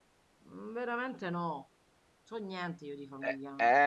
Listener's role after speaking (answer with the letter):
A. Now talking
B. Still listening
A